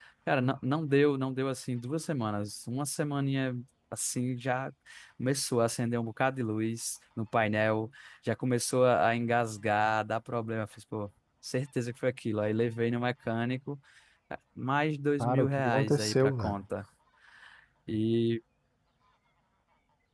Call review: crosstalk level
present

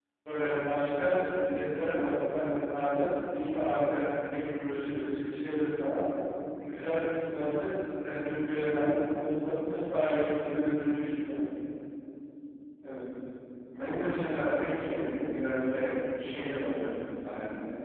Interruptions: none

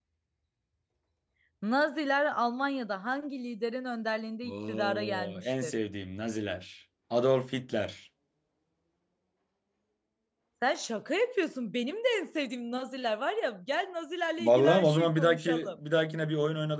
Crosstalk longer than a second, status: present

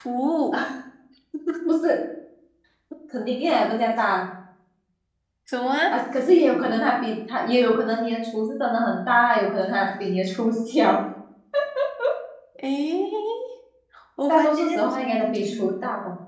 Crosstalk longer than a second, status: present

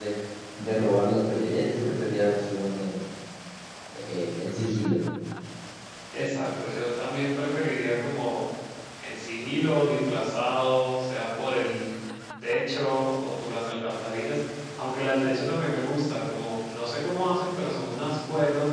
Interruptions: none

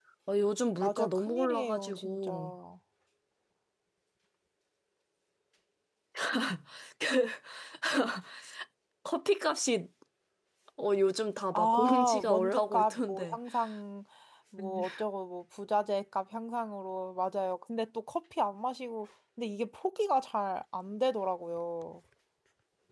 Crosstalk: present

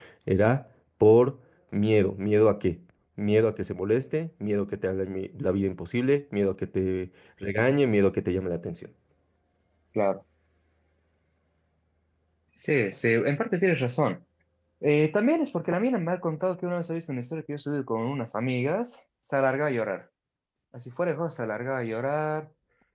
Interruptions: none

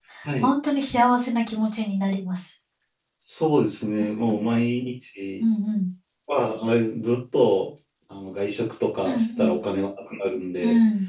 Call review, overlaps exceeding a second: none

